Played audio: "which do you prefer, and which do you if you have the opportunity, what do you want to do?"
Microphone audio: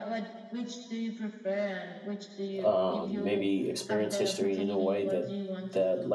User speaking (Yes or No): Yes